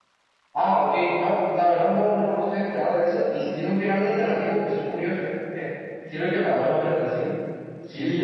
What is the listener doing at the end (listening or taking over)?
taking over